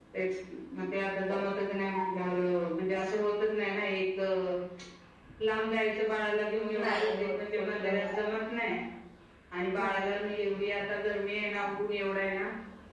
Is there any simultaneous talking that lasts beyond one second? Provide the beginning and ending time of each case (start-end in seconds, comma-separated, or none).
6.8-8.2